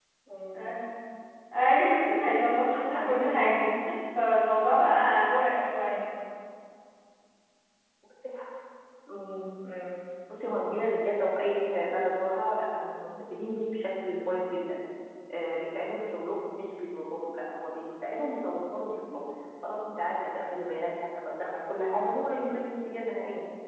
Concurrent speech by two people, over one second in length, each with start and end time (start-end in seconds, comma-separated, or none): 2.2-3.5